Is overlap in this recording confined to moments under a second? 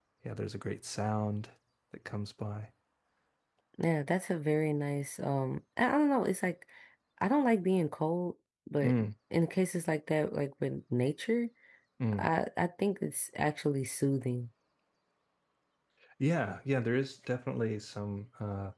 Yes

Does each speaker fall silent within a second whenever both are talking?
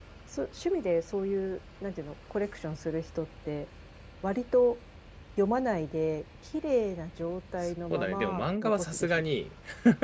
No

